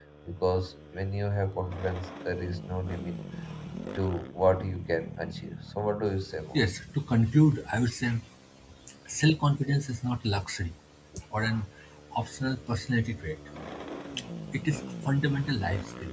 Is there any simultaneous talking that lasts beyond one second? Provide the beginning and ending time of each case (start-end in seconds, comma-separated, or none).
none